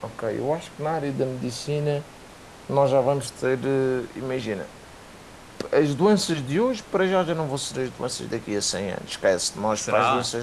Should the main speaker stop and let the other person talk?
No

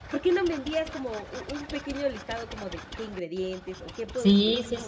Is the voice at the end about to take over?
Yes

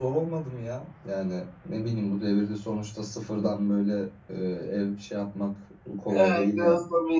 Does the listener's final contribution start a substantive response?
Yes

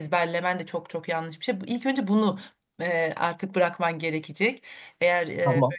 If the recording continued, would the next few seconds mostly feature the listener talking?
No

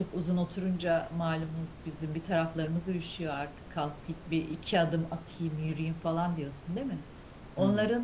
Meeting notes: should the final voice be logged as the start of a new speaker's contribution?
No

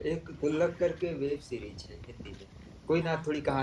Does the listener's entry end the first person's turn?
No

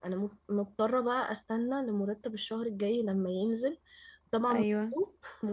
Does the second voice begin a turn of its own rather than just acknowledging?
No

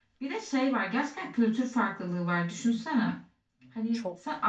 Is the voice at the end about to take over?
No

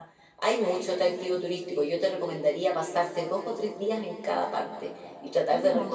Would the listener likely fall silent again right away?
Yes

